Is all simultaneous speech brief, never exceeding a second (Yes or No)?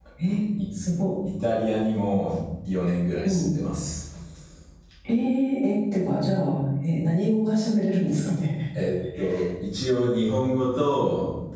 Yes